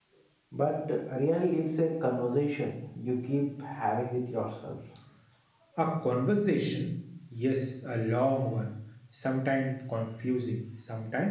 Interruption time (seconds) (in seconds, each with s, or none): none